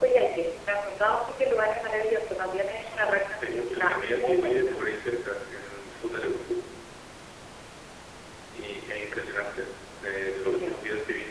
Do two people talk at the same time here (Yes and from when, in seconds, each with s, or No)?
Yes, from 2.8 s